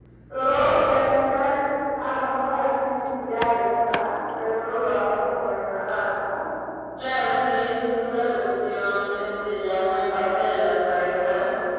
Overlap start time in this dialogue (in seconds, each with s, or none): none